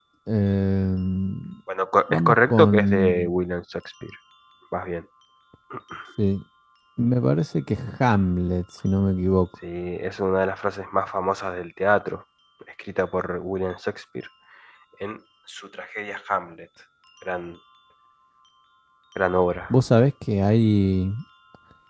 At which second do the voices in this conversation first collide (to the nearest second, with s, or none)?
2 s